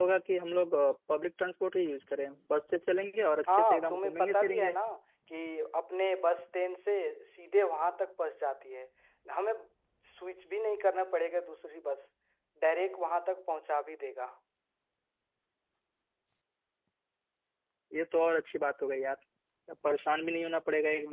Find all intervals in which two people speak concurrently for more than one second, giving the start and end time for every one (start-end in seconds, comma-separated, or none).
3.5-4.7